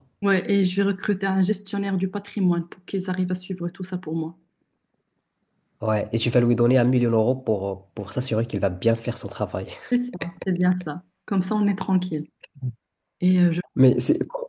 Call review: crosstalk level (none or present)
none